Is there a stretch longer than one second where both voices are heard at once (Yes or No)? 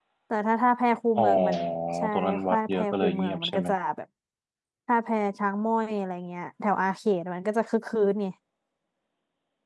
Yes